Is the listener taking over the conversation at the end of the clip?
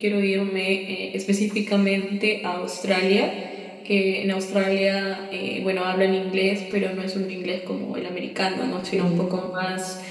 No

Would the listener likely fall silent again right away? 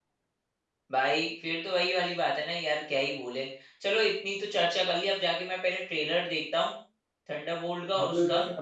No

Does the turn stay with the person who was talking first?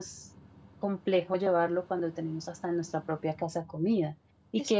Yes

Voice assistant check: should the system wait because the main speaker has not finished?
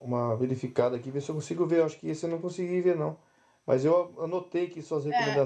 Yes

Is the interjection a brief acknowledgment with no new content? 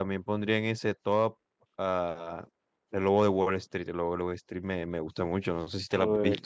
No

